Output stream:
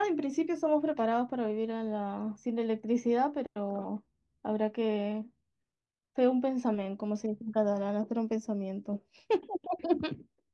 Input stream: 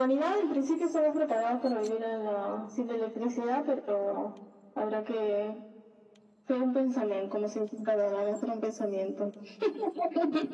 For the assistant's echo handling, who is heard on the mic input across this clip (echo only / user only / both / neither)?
echo only